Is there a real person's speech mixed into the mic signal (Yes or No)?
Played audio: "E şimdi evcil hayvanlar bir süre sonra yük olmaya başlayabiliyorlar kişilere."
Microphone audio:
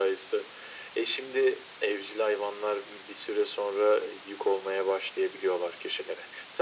No